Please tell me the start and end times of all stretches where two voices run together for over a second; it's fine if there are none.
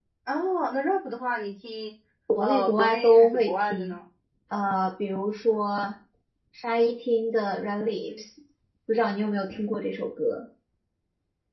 2.4-4.0

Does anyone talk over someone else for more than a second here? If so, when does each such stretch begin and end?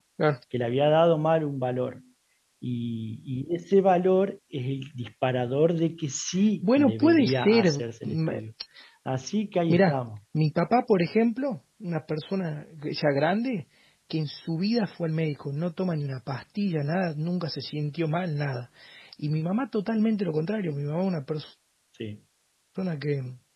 6.6-8.2

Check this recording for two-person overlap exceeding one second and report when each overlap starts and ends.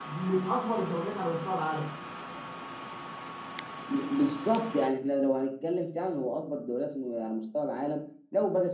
none

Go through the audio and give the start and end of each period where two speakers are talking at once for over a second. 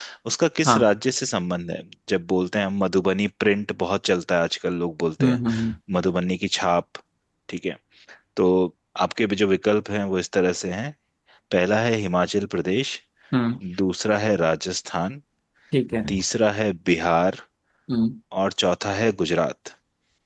none

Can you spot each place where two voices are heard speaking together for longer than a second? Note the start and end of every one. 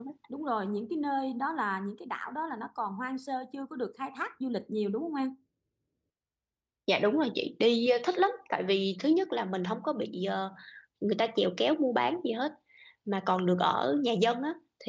none

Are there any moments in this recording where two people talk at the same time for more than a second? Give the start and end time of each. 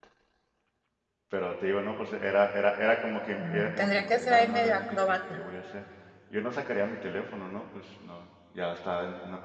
3.4-5.4

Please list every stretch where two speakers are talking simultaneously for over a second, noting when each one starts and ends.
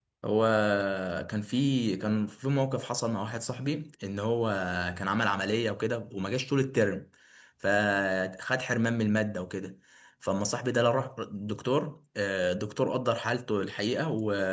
none

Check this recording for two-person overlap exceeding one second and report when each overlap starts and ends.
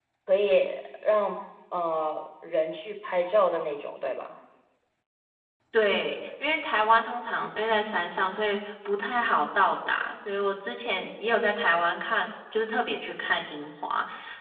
none

